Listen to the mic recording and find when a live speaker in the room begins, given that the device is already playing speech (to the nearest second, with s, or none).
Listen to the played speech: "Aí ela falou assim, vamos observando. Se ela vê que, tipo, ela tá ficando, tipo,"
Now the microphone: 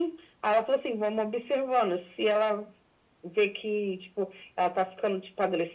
none